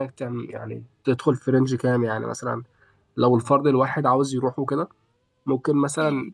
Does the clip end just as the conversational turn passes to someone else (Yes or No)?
No